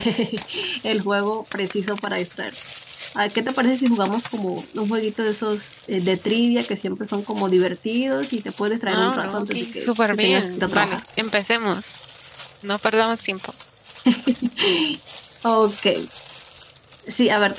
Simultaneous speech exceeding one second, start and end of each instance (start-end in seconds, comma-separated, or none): 8.9-11.0